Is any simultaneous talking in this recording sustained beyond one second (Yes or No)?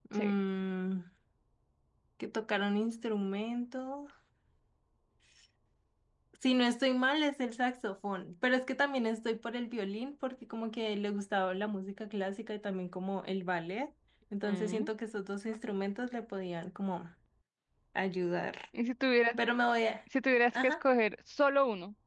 No